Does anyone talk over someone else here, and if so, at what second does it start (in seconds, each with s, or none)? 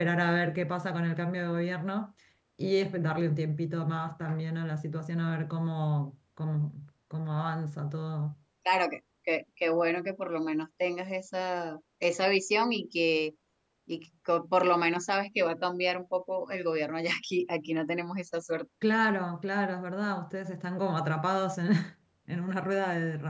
none